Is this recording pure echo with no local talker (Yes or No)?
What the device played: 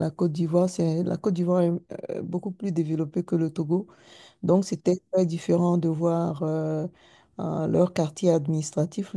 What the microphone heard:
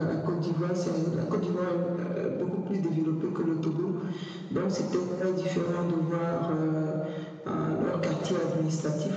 Yes